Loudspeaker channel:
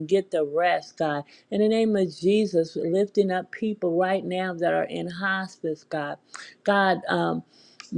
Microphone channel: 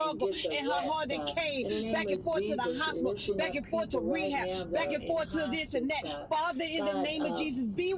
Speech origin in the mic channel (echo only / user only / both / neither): both